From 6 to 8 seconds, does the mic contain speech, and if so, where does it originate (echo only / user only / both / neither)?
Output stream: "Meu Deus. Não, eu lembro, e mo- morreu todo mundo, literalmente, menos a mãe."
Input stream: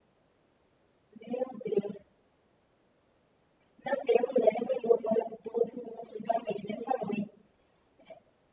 echo only